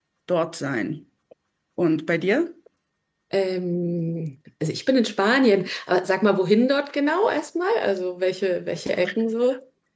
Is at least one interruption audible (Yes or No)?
No